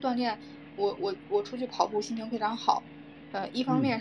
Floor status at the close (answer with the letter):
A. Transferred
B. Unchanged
B